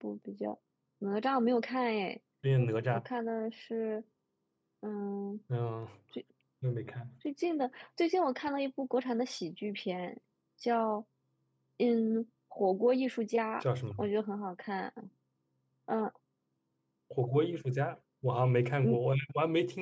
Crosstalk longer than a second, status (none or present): none